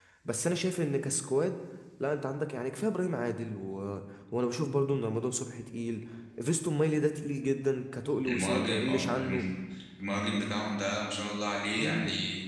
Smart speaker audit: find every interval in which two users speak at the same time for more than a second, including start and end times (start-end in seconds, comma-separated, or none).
8.2-9.4